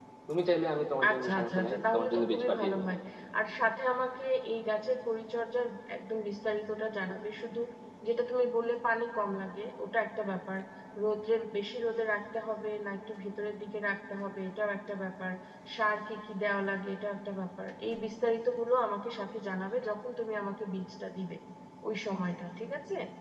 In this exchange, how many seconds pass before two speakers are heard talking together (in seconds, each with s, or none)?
1.1 s